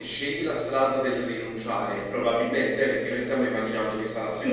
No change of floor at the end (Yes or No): Yes